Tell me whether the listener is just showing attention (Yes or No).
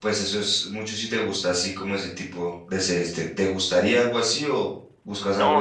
No